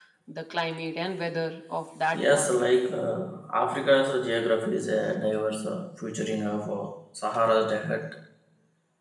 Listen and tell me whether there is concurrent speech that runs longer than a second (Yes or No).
No